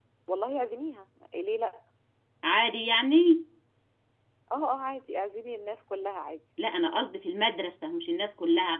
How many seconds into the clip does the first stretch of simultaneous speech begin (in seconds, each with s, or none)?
none